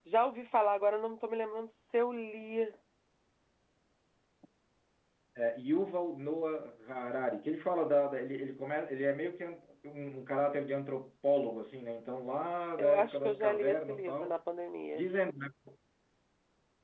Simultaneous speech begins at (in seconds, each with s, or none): 12.8 s